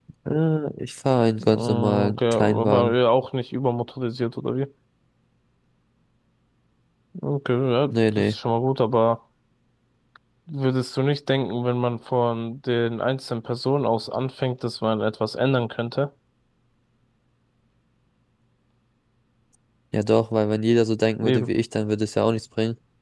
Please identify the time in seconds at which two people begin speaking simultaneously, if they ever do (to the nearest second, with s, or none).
1 s